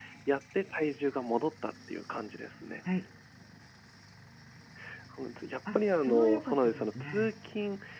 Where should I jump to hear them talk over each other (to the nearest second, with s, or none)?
6 s